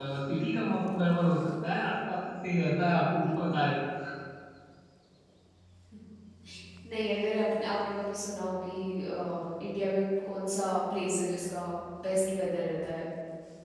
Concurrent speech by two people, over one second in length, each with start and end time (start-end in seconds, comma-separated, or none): none